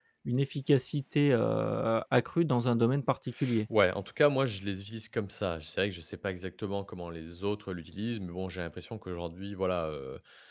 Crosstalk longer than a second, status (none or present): none